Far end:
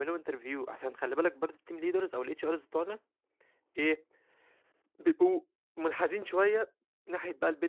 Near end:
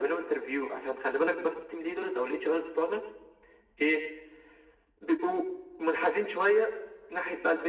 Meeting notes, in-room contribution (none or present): none